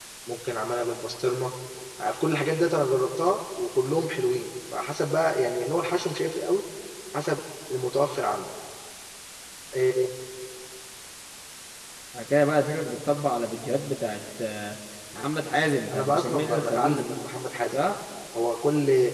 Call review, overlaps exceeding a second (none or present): present